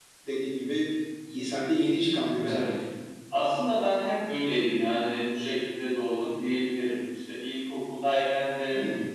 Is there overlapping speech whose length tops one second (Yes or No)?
No